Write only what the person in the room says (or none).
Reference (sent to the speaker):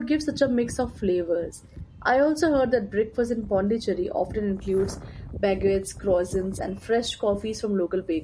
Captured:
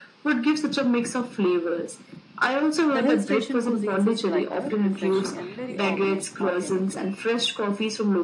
The hill station cuisines is lighter, refreshing, and very organic. Organic,